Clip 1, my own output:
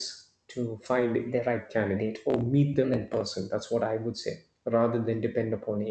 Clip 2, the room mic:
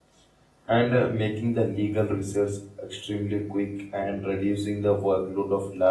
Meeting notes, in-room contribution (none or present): present